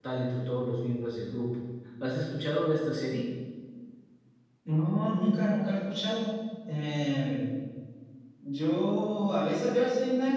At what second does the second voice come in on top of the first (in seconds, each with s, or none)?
none